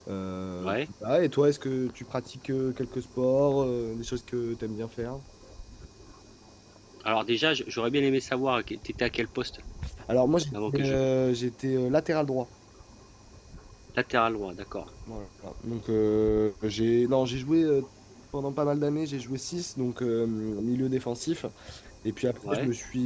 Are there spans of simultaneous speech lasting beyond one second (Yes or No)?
No